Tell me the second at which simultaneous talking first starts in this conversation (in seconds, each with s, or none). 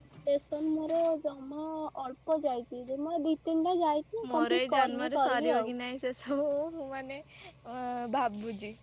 4.2 s